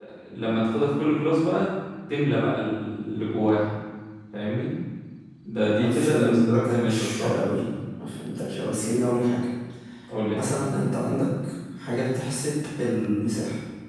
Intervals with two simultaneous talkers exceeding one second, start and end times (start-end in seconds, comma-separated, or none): 5.8-7.3